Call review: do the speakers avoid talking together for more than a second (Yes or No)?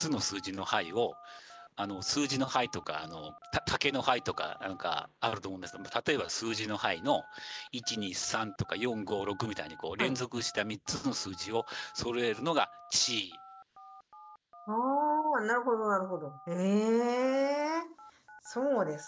Yes